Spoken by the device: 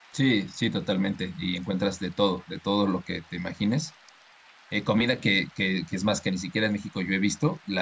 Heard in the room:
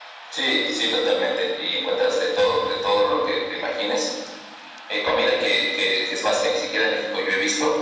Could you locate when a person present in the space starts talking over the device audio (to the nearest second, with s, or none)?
none